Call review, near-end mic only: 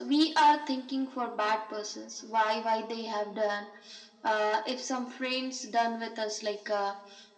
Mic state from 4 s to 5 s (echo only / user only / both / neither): echo only